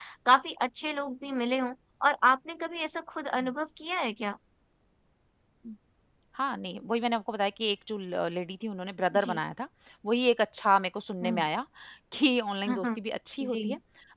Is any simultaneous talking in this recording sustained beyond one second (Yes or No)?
No